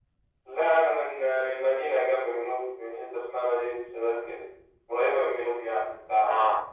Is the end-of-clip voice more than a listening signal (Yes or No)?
Yes